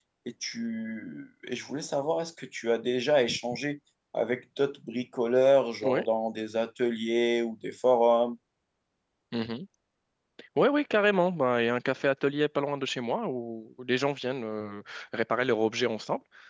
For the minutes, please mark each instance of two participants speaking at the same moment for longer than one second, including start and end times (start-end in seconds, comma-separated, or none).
none